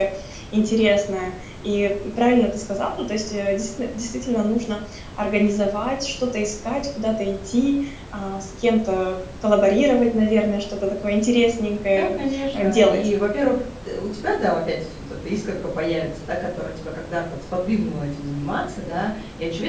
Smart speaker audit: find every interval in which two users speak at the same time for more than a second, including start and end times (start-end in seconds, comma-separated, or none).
11.9-13.1